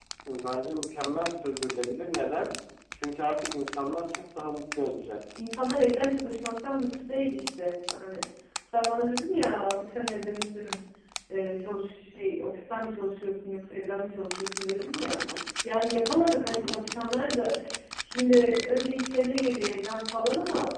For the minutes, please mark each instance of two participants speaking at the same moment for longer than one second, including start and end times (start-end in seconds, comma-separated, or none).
none